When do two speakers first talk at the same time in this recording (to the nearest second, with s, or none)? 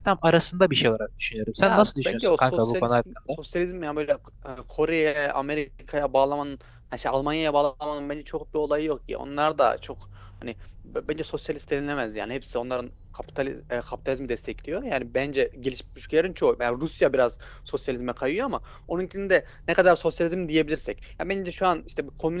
2 s